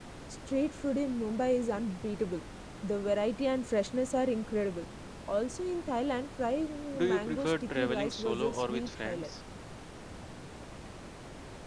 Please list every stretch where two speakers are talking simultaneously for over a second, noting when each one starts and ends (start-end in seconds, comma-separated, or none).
7.0-9.3